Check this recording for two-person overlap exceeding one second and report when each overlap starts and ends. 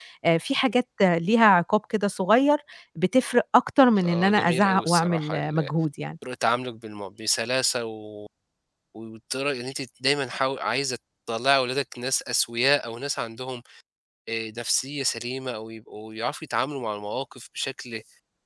4.0-5.7

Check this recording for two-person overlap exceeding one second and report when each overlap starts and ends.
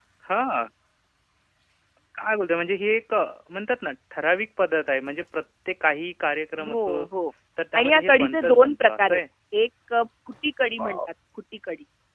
7.8-9.2

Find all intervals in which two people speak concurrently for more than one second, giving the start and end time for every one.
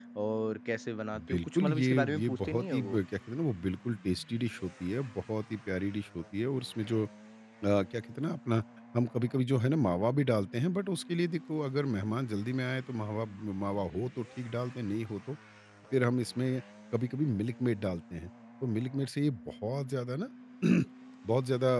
1.3-3.0

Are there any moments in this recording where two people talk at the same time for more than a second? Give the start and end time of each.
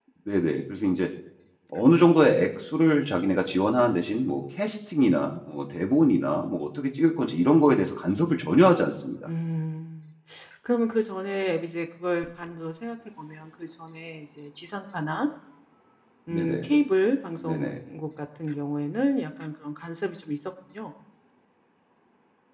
none

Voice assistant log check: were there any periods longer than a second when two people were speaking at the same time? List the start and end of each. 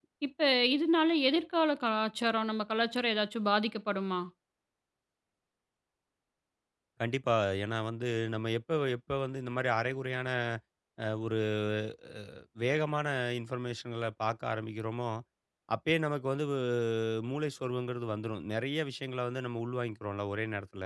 none

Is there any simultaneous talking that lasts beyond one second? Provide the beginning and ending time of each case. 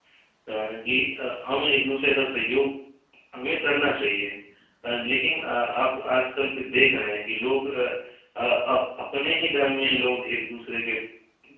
none

